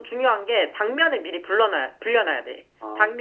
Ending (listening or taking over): listening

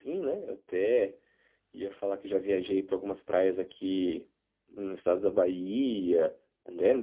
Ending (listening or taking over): listening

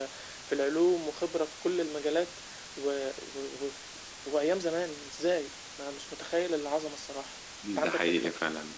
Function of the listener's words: taking over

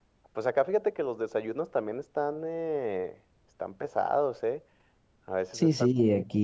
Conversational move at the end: taking over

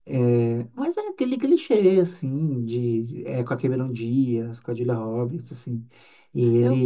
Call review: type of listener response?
listening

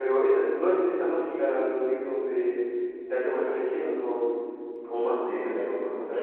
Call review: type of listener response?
taking over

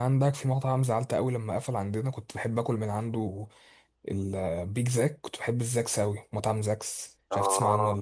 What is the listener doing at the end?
taking over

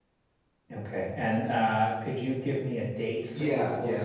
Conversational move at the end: taking over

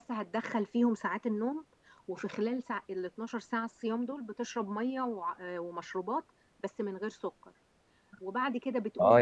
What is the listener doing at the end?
taking over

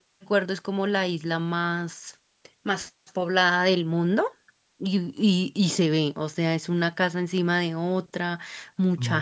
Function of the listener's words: listening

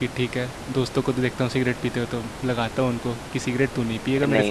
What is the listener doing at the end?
taking over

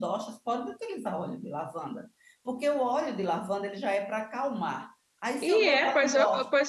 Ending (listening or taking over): taking over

